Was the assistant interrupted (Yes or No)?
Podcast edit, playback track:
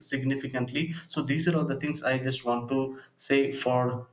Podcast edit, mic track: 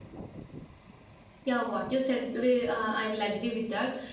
Yes